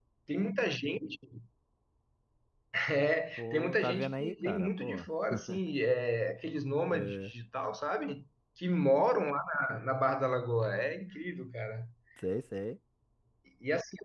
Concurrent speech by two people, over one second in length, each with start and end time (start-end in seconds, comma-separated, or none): 3.4-5.1